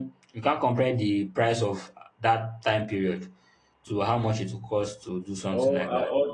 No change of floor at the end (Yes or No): No